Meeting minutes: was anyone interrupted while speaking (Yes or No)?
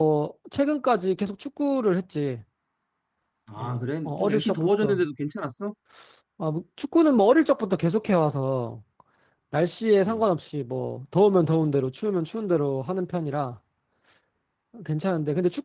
Yes